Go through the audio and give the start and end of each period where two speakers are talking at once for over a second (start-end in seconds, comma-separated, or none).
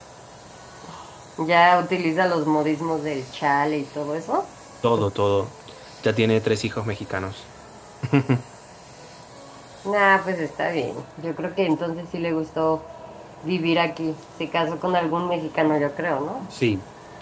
none